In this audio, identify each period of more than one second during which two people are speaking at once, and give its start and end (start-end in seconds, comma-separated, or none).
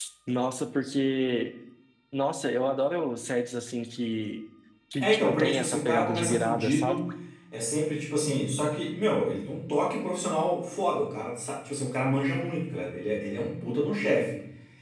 5.0-7.0